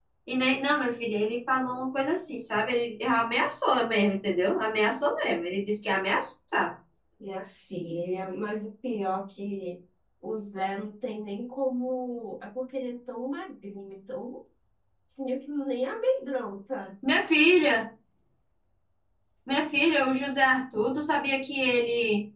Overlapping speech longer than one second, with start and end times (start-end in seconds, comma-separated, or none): none